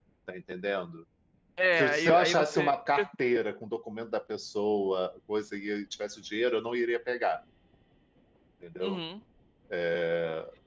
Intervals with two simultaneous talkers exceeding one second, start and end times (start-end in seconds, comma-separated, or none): 1.8-3.1